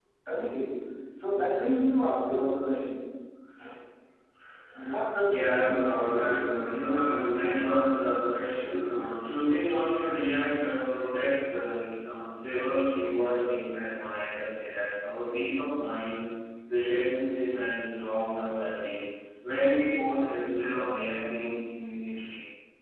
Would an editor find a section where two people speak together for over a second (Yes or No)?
Yes